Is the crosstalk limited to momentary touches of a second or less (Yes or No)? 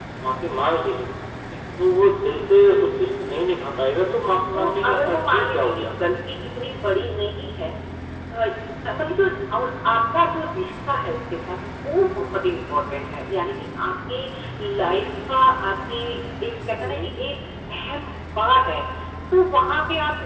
No